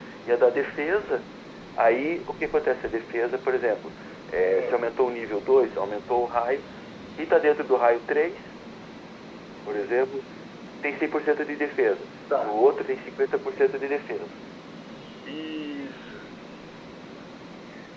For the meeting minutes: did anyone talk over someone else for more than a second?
No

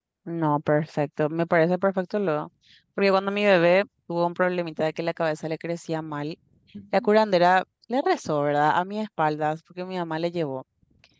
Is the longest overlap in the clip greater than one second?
No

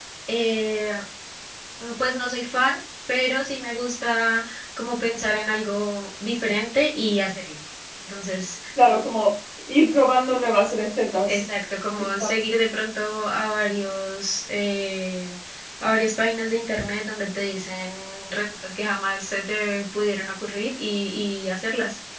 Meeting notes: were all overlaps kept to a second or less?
Yes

